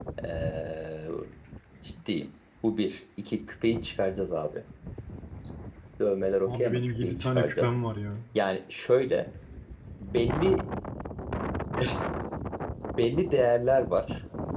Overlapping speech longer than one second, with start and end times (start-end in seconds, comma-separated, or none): 6.5-7.7